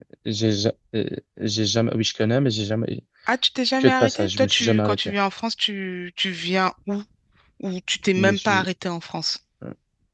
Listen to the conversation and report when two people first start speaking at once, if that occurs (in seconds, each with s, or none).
3.8 s